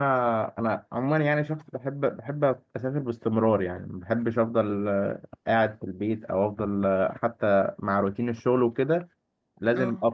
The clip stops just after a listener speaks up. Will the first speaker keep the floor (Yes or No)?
Yes